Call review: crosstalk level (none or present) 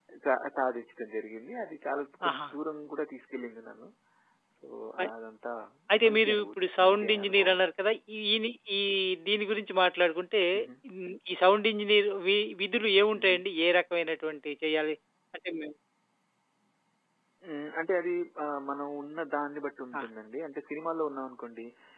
present